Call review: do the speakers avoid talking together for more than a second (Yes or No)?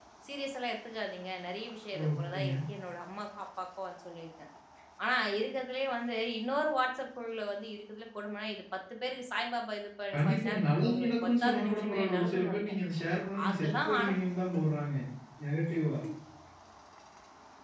No